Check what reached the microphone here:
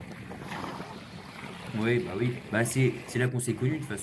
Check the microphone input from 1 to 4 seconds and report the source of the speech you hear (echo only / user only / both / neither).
user only